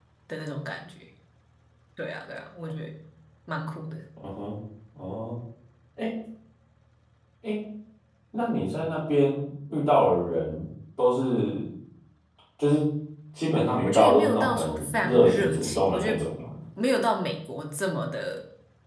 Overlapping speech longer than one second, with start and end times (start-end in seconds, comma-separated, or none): 13.8-16.2